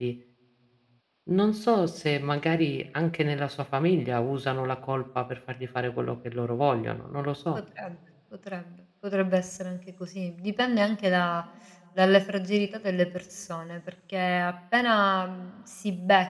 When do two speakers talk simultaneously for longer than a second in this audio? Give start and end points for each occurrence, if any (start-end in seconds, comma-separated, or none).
none